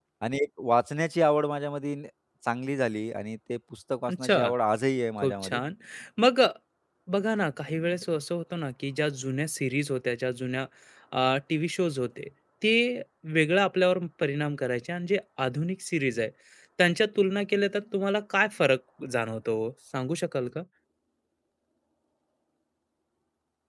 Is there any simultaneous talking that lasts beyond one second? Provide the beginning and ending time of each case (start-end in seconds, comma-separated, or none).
none